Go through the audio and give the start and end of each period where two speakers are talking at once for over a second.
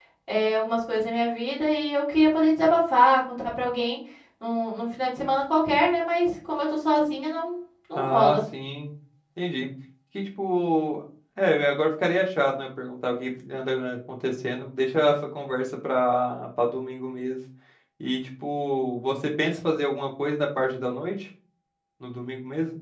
none

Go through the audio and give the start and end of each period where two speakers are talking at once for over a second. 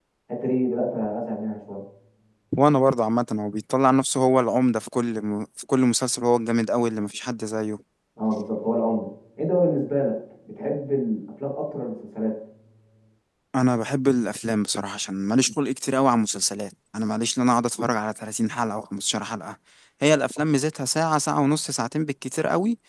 none

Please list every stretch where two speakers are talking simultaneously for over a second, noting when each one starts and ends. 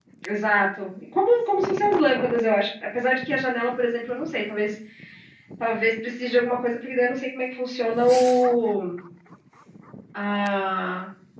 none

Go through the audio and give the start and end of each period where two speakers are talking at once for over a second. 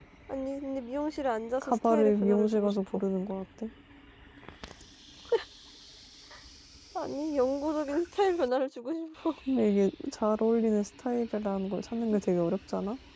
1.6-3.0

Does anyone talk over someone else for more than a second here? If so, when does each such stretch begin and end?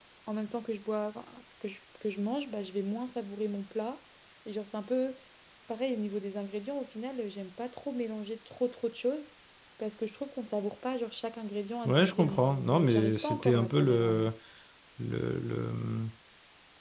11.8-14.3

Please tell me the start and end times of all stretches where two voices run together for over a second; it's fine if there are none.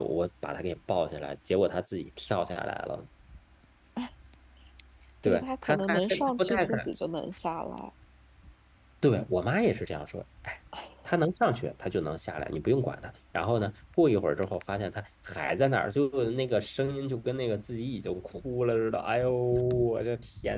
5.2-6.9

